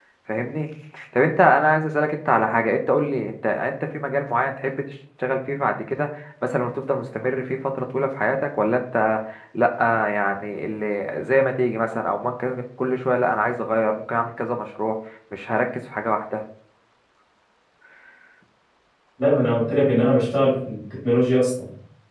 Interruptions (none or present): none